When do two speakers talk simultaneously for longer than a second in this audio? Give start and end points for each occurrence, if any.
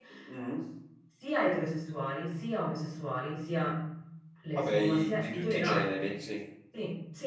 4.5-6.0

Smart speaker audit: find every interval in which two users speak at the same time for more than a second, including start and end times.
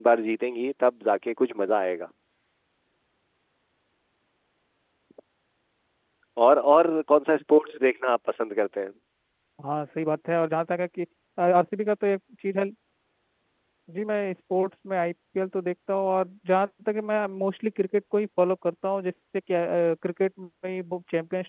none

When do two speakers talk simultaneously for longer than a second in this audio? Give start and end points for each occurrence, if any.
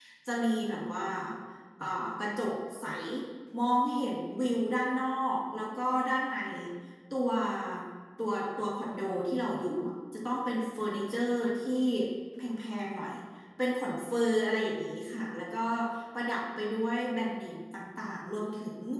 none

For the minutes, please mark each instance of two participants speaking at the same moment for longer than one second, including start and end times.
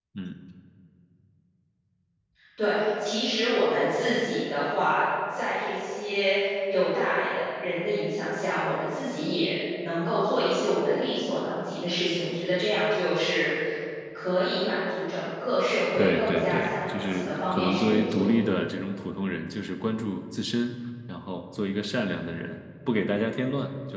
16.0-18.3

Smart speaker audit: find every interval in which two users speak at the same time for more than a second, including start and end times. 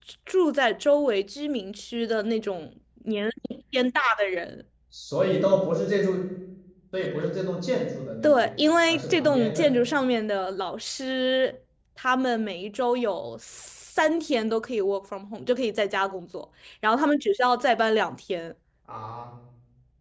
8.2-9.8

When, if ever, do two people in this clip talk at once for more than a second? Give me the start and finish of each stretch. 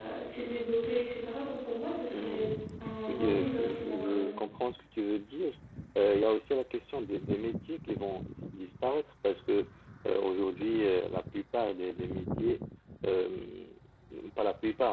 3.1-4.3

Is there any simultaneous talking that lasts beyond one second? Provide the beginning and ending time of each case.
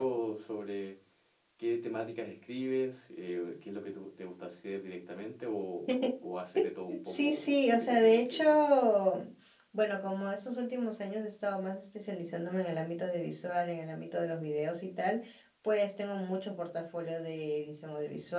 7.1-8.4

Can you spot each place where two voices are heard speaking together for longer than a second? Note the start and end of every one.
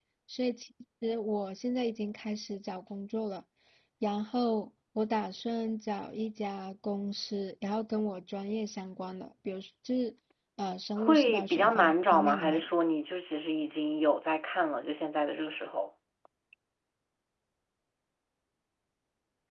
11.0-12.6

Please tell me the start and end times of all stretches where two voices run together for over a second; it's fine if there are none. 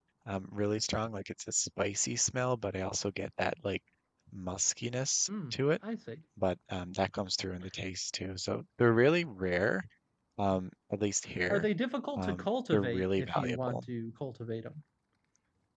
12.2-13.8

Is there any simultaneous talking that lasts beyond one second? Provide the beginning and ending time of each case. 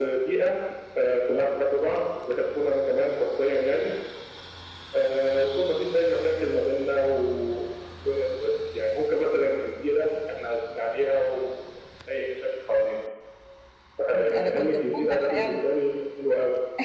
14.1-15.6

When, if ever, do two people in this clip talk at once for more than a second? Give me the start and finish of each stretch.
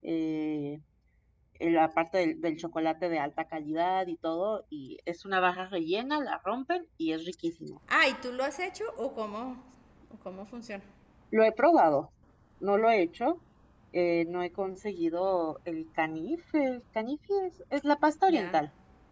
none

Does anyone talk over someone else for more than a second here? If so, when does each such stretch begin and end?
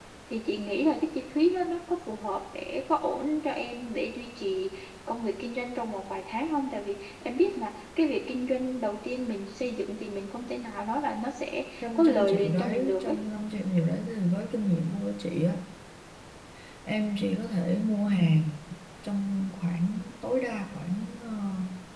11.8-13.2

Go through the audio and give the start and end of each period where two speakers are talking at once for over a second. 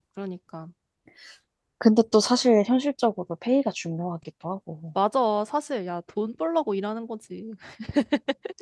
none

